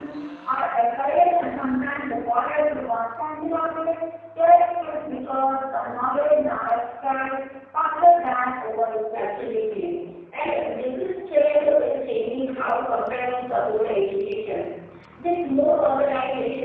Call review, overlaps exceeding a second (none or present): none